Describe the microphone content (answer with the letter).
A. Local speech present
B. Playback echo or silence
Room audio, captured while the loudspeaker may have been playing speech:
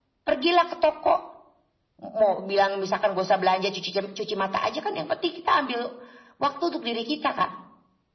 B